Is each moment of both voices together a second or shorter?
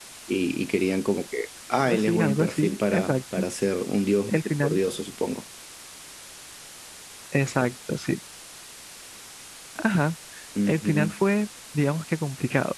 No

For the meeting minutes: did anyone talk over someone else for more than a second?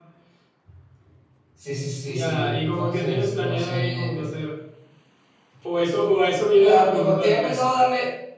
Yes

